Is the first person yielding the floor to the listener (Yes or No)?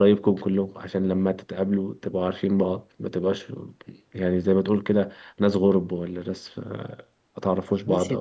Yes